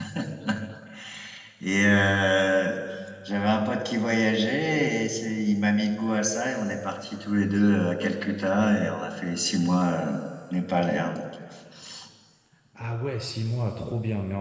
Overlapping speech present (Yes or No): No